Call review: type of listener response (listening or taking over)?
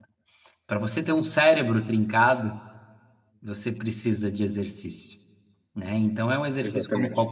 listening